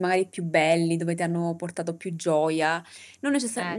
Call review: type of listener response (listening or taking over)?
listening